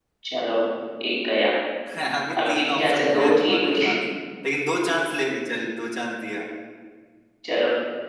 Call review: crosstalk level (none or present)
present